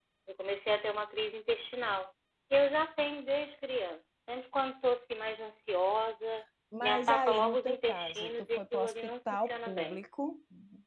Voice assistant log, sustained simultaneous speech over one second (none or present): present